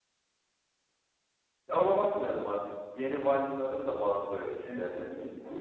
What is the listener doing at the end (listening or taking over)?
taking over